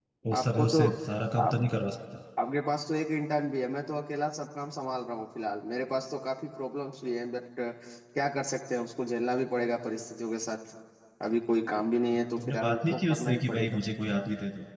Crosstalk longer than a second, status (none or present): present